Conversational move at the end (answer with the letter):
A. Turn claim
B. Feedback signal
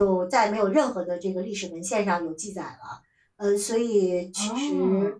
B